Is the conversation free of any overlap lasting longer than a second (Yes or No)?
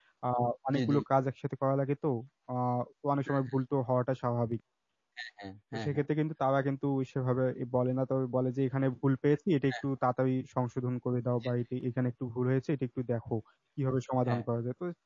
Yes